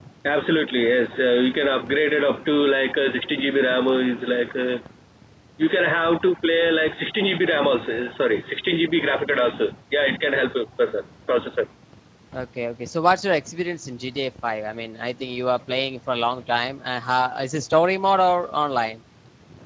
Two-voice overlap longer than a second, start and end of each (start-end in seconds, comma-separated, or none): none